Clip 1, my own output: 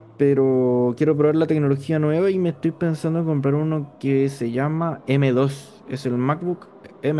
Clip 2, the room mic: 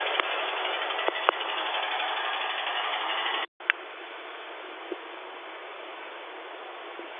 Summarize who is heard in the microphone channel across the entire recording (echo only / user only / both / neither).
neither